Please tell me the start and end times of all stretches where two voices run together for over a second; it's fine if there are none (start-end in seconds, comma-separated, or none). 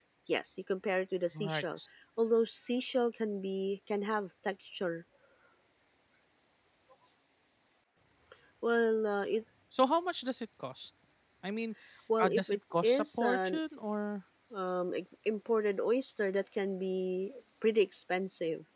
12.2-13.6